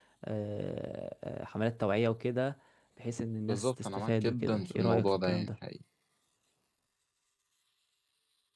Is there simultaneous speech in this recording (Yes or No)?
Yes